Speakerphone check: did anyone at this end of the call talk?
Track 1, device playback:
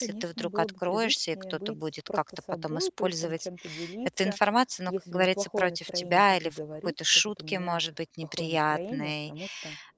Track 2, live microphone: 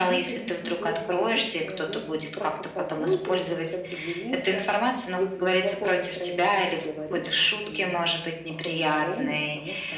No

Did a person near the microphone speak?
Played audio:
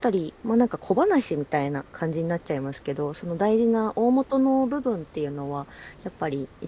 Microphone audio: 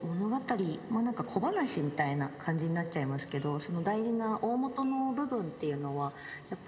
No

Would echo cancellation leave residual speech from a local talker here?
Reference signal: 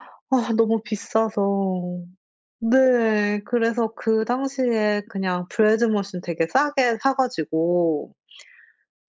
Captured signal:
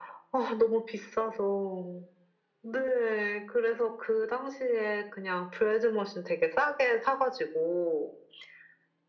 No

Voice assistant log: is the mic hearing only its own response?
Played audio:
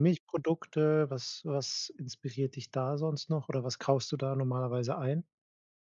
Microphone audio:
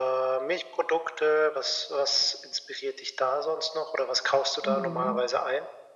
No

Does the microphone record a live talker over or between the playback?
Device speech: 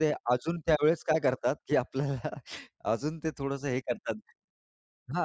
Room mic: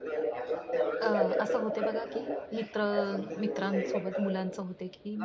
Yes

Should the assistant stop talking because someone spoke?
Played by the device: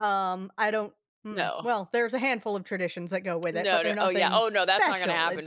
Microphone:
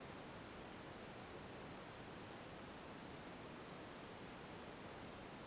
No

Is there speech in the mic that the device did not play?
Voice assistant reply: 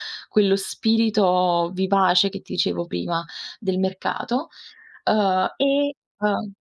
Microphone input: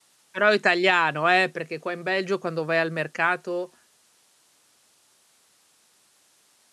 Yes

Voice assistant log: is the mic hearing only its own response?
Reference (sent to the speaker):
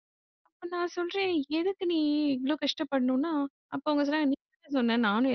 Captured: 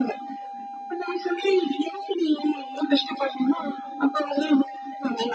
Yes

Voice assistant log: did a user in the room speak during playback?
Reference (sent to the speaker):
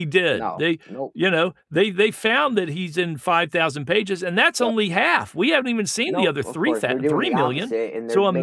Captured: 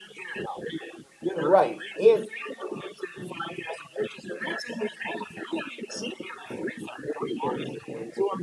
Yes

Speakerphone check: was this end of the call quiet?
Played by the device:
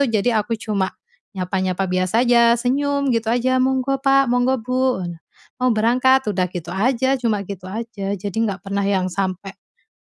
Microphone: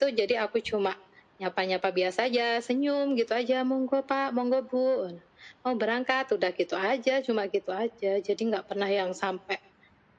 Yes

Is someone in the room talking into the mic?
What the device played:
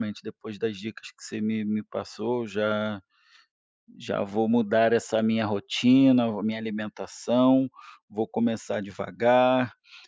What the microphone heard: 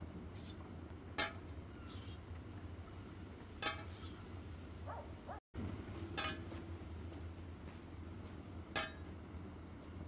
No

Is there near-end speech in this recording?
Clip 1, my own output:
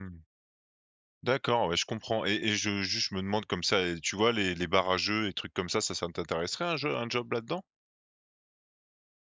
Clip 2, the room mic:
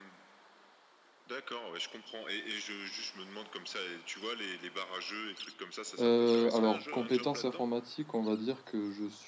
Yes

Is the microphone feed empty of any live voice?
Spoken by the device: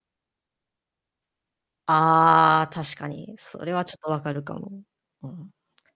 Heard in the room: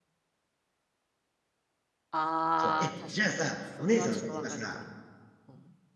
No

